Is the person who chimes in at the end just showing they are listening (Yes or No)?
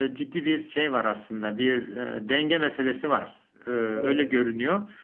Yes